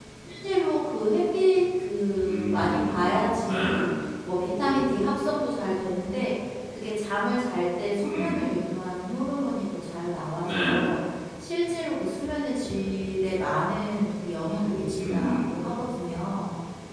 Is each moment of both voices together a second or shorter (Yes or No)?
No